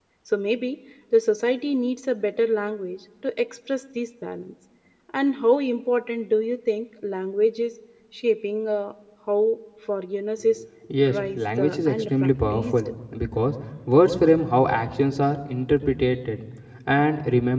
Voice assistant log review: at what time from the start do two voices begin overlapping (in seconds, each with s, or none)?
10.9 s